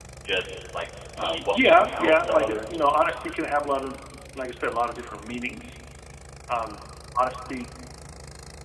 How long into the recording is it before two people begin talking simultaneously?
1.2 s

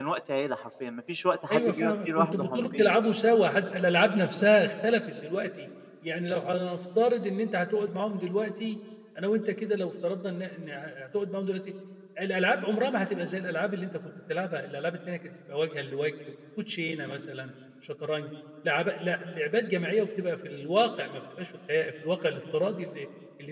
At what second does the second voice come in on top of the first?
1.5 s

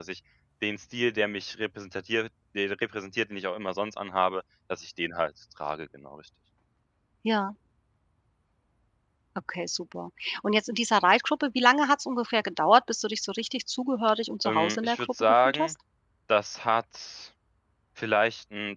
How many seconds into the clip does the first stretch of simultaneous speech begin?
14.4 s

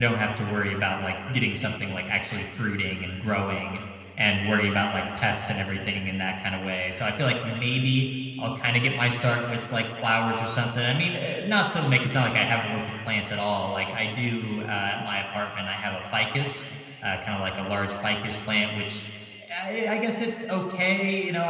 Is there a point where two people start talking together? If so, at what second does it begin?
none

